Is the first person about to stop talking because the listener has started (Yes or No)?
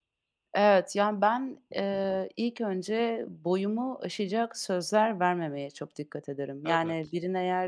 No